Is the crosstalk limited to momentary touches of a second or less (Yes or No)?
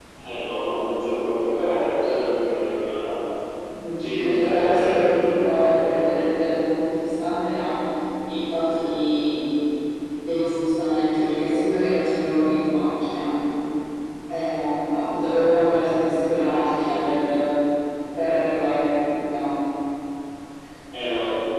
No